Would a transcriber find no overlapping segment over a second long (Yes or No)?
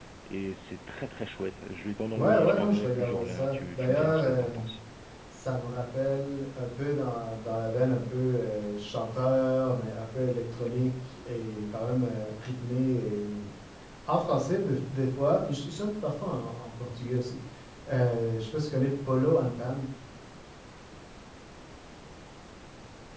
No